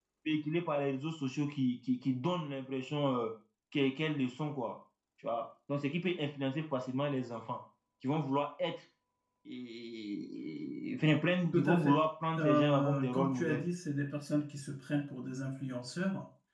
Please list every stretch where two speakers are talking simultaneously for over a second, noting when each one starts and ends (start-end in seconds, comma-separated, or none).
12.4-13.6